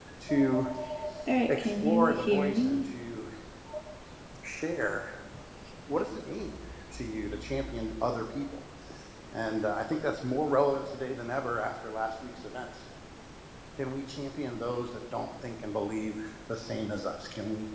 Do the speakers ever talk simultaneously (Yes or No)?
Yes